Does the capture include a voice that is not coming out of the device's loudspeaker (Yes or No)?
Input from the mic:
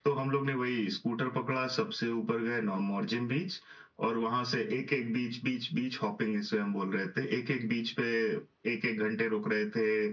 No